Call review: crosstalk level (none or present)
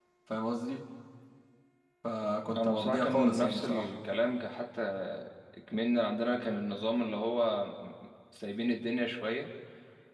present